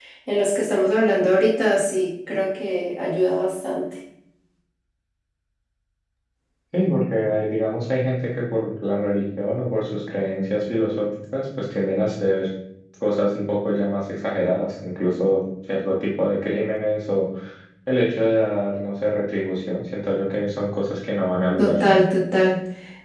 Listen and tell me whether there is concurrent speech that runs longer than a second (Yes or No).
No